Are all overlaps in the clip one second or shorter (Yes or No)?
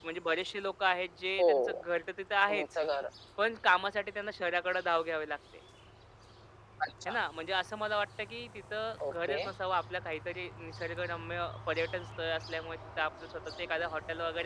Yes